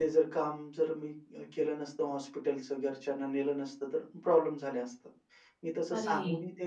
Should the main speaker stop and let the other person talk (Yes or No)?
No